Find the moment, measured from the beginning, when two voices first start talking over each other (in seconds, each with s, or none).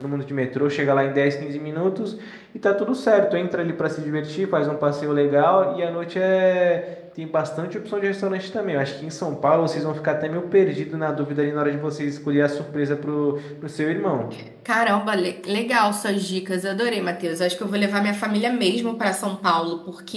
none